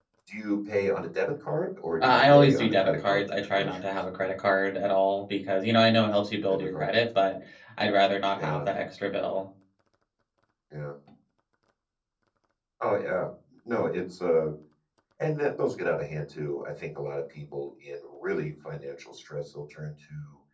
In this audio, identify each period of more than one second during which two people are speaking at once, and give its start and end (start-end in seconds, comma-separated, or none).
2.1-3.8